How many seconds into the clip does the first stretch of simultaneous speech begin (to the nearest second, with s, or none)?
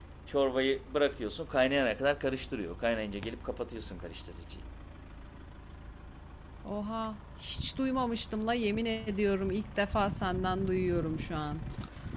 none